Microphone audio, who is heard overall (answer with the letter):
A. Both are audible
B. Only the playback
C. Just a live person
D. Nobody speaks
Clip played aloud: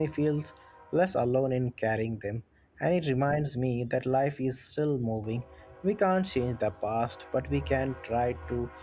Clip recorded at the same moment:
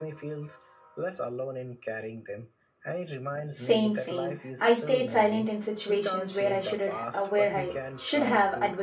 A